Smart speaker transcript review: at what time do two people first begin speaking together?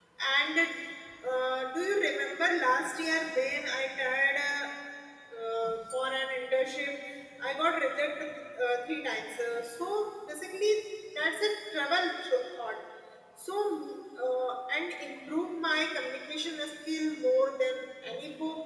none

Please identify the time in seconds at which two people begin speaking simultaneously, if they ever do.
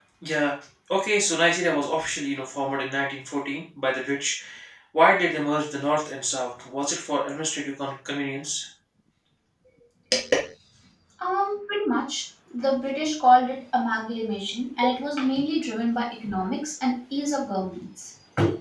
none

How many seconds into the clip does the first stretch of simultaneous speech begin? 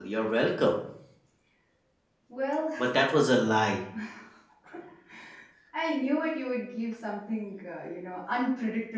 none

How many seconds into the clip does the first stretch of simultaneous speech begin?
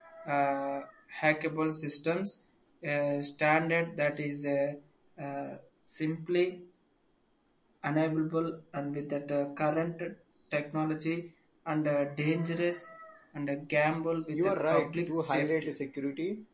14.3 s

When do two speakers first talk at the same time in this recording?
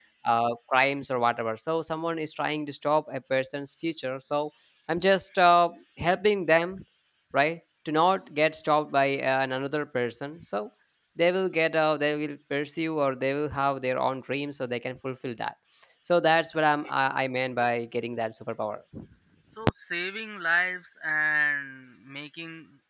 none

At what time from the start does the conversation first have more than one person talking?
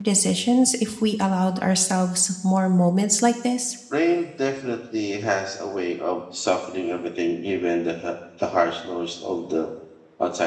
none

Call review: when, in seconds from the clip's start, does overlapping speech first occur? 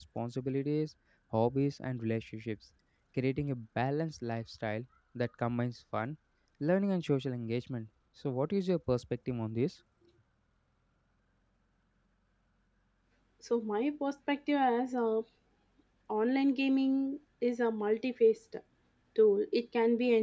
none

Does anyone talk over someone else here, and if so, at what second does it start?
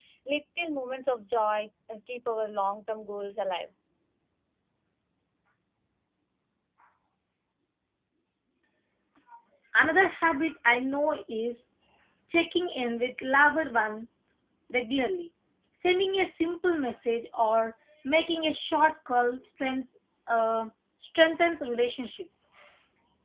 none

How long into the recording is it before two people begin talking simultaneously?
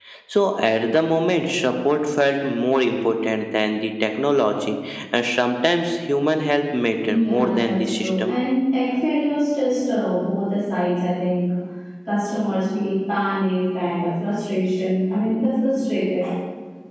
7.0 s

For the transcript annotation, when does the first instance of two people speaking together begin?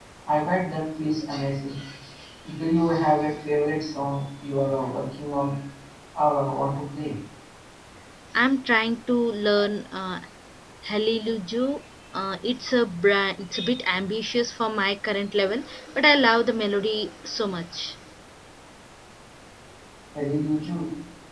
none

